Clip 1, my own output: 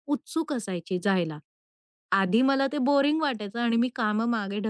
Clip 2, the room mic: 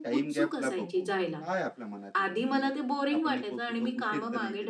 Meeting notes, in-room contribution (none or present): present